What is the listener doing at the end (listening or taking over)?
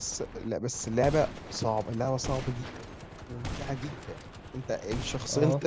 listening